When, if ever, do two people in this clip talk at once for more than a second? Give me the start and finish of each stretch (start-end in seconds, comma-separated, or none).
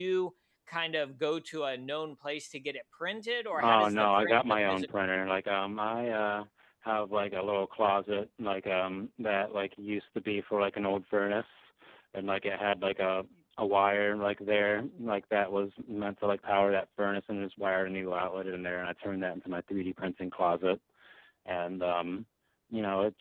3.6-4.9